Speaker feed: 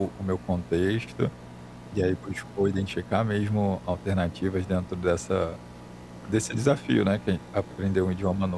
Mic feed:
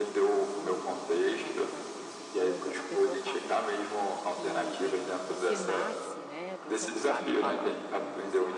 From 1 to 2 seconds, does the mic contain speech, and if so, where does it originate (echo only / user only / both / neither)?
both